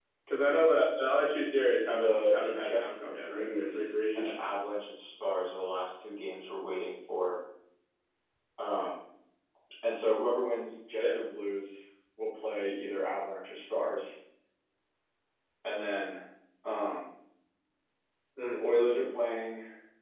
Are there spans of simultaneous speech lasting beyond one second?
Yes, from 1.9 s

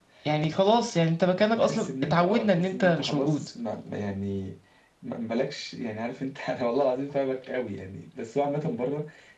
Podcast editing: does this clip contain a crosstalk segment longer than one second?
Yes, from 1.6 s

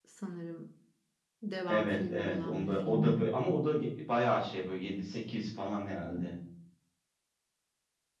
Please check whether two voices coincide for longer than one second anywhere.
Yes, from 1.7 s

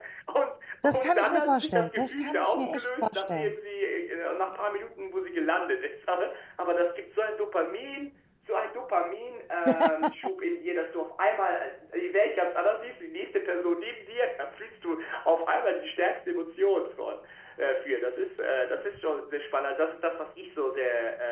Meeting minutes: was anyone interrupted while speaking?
Yes, from 0.8 s

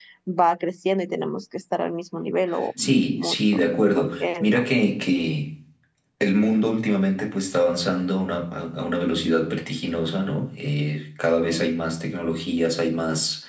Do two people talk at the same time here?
Yes, from 2.8 s

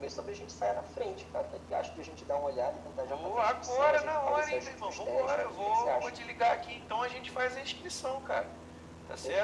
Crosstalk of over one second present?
Yes, from 3.1 s

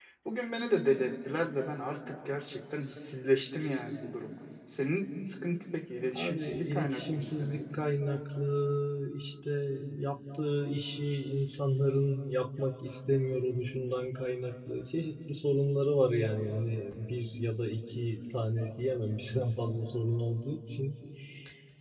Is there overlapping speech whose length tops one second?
Yes, from 6.0 s

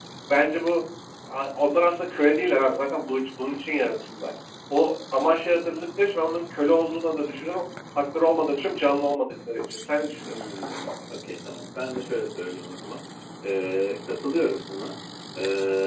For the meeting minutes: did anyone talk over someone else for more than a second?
No

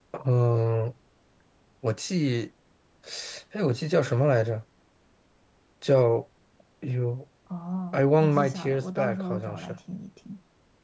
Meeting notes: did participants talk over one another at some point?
Yes, from 7.9 s

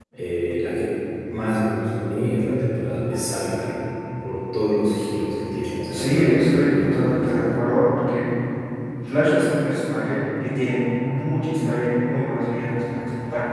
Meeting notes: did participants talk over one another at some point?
Yes, from 5.9 s

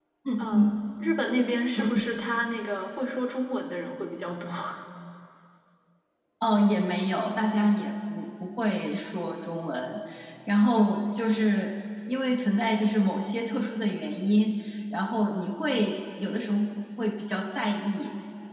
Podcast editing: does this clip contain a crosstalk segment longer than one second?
No

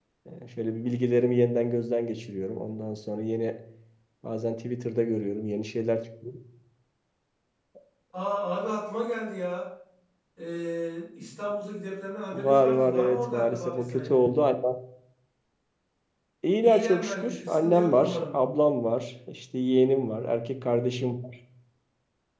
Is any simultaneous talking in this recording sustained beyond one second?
Yes, from 12.3 s

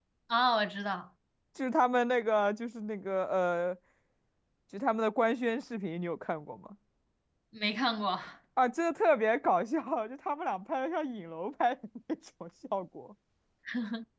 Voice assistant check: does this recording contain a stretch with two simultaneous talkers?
No

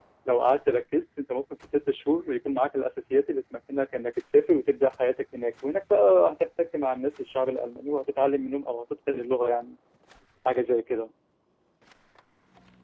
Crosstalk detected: No

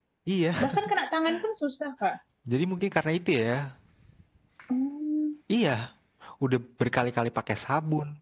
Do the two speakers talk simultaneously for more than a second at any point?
No

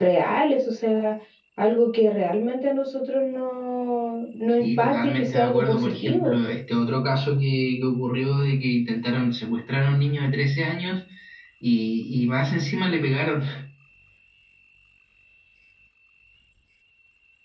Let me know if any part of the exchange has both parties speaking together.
Yes, from 4.6 s

